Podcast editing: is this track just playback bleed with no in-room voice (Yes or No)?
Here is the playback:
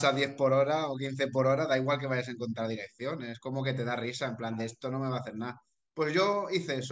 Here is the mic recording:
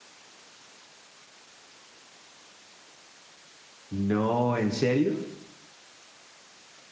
No